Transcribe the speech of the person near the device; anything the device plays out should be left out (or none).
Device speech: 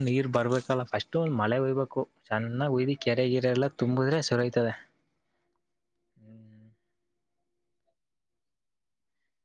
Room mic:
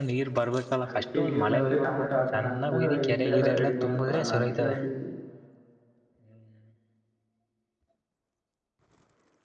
ಅದಕ್ಕೆ ನೀರ್ ಬಂದ್ರೆಟಮೆಟೊ ಹಾಕೋಣ ಅಂತ ಈಗ್ಲೇ ಎಲ್ಲಾ ರೆಡಿ ಮಾಡ್ಕೊಳ ನಾ ಅಂತ ಕೇಳ್ತಿದ್ವಿ